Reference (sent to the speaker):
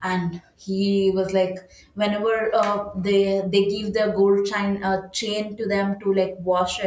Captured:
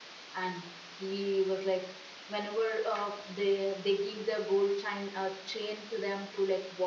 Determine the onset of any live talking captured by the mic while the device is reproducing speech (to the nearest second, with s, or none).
none